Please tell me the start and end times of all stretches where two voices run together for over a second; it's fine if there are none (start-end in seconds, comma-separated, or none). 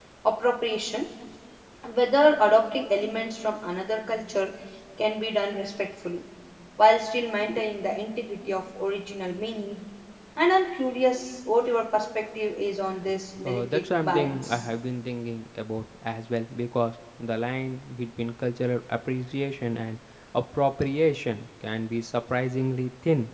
13.4-14.6